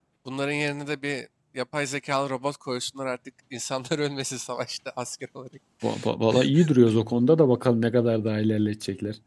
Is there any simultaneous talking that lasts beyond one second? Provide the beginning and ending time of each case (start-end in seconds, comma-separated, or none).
none